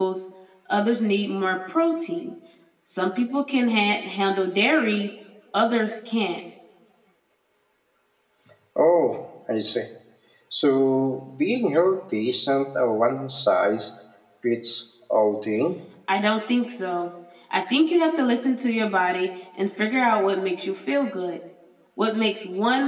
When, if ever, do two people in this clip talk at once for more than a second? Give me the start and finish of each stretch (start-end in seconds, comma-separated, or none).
none